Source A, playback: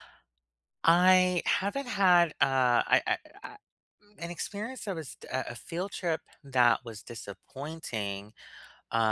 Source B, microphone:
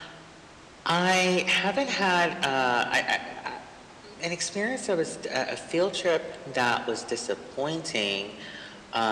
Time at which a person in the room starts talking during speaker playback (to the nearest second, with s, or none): none